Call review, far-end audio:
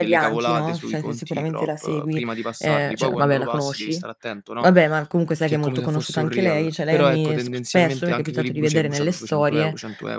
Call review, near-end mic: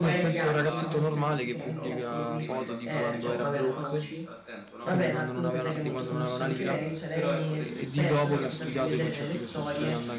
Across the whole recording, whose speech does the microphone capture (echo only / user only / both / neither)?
both